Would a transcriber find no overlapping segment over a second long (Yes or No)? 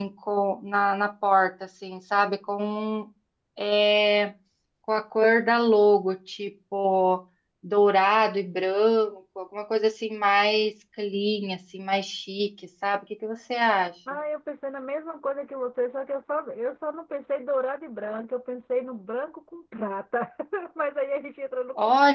Yes